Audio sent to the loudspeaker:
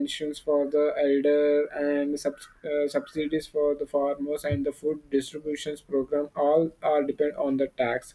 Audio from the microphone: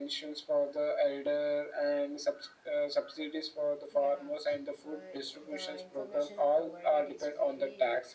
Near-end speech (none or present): present